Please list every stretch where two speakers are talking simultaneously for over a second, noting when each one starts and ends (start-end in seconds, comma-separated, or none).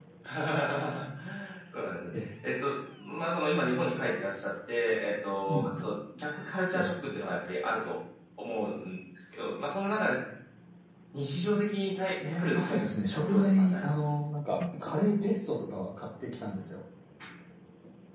12.2-14.0